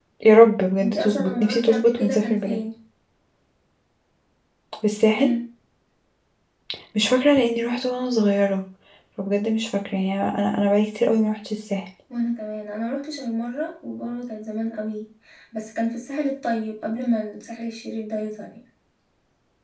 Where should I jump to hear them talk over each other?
0.8 s

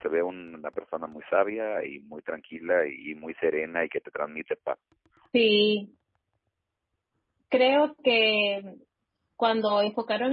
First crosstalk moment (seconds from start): none

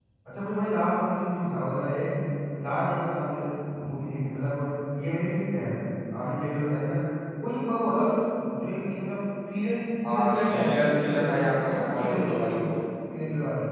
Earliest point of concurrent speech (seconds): 10.0 s

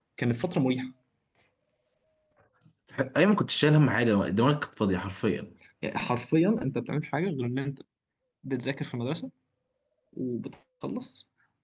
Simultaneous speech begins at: none

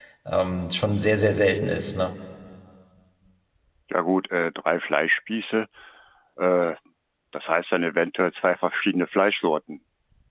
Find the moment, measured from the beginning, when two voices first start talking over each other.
none

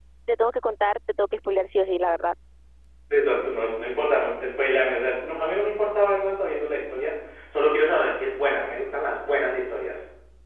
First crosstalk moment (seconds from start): none

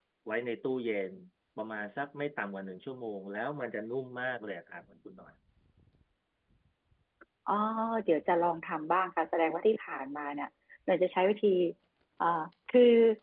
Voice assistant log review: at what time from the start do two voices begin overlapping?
none

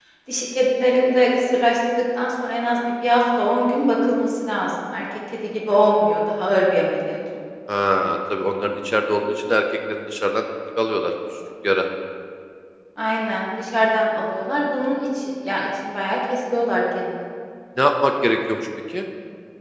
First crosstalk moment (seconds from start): none

